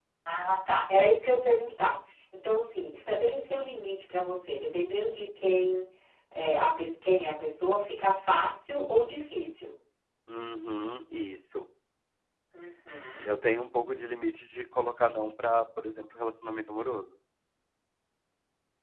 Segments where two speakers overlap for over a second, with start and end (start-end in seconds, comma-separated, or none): none